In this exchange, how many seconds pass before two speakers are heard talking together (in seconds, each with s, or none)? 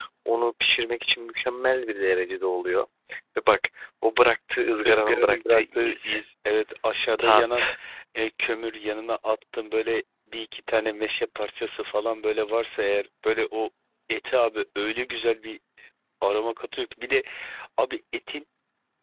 4.8 s